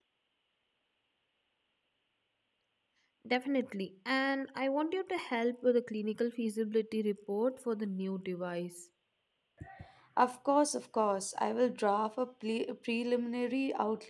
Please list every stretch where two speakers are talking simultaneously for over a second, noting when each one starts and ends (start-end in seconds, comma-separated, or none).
none